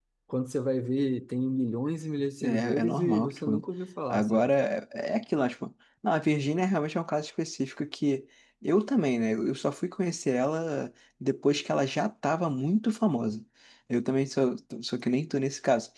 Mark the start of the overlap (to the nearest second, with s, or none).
2 s